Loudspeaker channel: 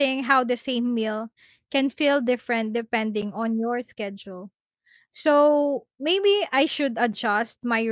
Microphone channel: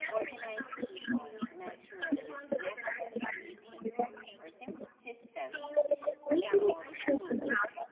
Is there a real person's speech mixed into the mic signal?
Yes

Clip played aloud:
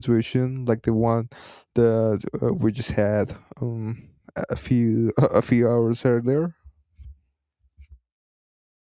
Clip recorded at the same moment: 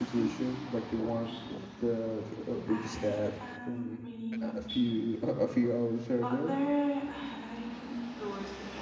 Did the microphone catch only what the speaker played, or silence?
No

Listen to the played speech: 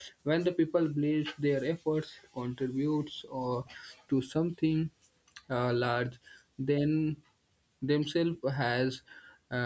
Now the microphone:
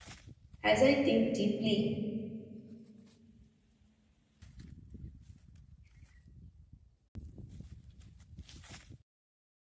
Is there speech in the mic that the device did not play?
Yes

